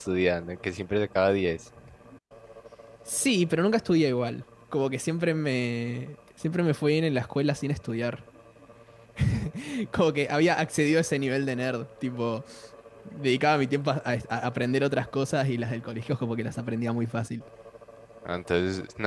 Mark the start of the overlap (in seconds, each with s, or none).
none